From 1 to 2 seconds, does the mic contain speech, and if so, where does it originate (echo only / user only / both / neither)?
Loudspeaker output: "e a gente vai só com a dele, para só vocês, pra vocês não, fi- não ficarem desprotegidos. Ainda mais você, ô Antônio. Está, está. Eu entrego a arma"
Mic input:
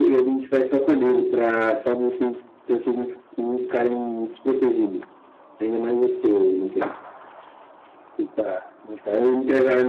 echo only